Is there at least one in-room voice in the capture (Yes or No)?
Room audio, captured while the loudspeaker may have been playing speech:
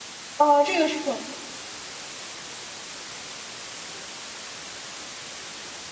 Yes